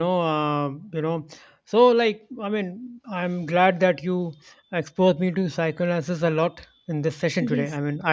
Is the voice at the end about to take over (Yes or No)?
No